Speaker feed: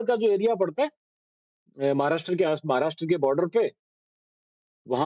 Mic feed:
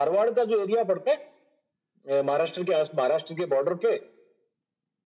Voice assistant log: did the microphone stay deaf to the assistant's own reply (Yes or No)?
No